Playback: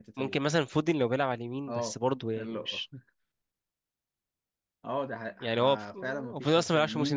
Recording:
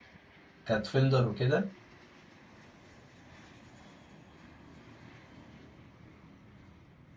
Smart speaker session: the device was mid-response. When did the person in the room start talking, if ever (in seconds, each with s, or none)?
0.6 s